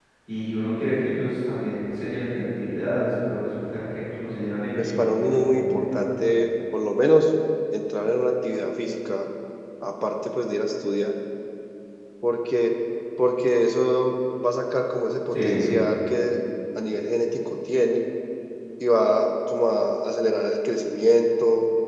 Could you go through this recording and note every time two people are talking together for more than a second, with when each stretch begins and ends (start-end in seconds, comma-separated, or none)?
4.8-6.0